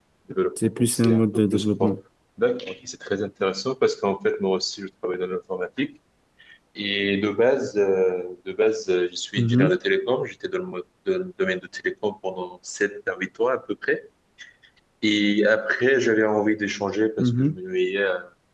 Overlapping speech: Yes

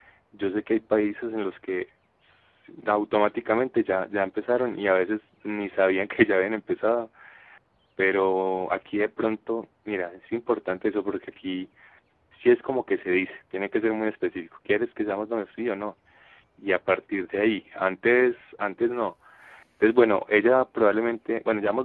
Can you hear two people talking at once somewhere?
No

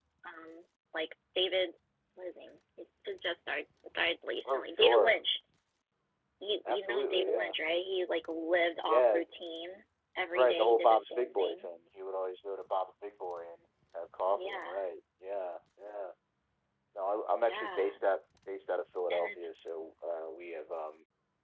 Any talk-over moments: Yes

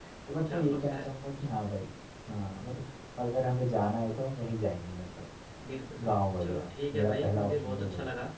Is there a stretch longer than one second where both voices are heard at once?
Yes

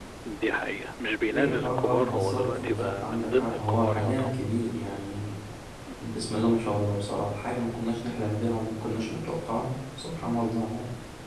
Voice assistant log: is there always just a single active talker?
No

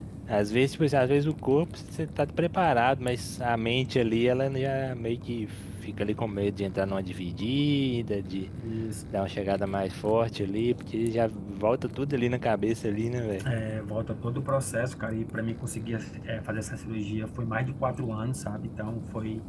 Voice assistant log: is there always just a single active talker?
Yes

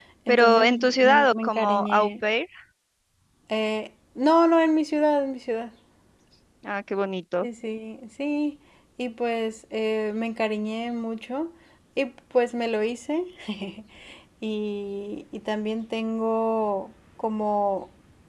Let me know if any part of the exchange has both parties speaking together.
Yes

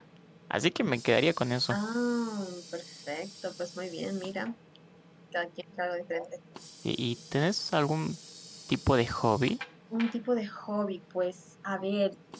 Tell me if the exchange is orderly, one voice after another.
Yes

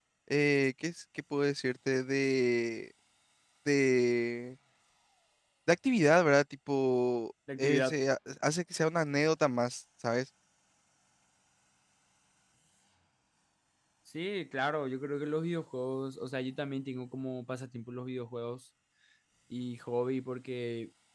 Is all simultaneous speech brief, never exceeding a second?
Yes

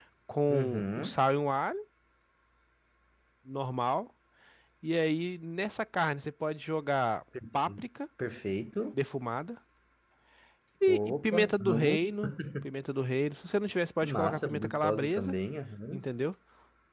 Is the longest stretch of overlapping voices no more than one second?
No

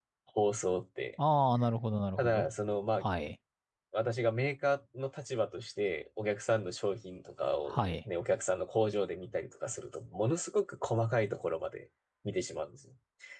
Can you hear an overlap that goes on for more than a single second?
No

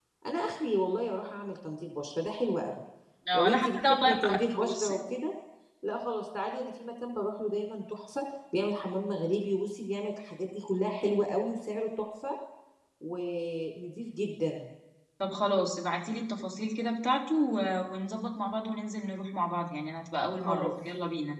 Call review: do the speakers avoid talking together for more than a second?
No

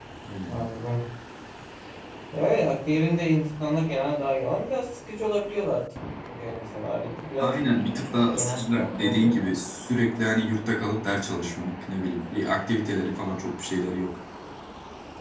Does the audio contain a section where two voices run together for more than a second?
Yes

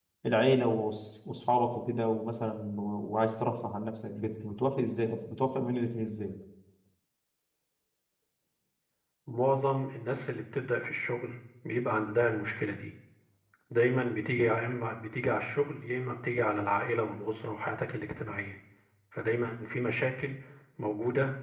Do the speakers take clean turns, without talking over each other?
Yes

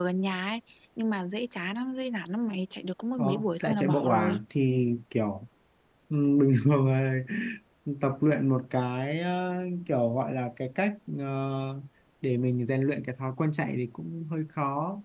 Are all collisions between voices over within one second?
No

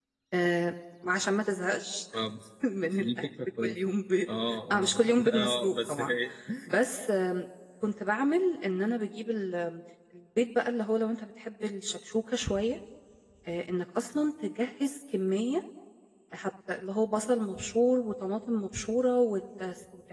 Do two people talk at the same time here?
Yes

